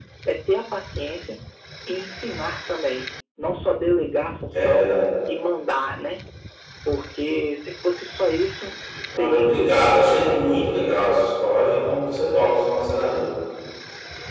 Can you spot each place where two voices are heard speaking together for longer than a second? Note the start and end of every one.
9.1-10.7

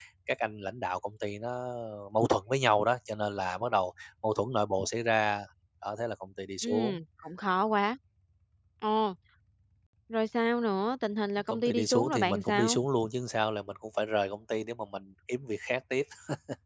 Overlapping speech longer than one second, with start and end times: 11.5-12.8

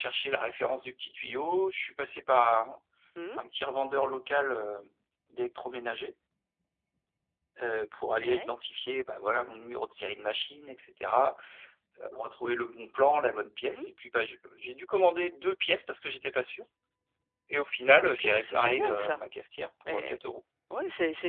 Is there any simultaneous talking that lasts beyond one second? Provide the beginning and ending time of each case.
17.9-19.3

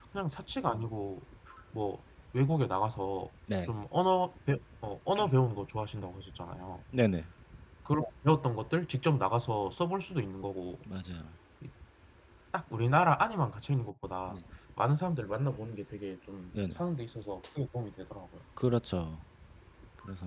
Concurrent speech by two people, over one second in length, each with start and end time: none

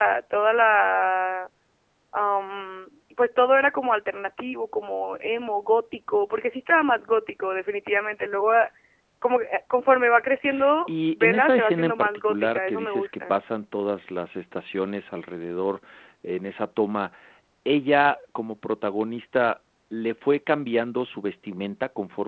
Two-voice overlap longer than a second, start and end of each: 10.9-13.3

